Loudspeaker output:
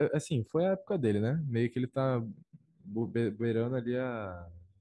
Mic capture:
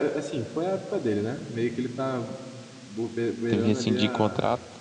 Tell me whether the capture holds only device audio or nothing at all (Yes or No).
No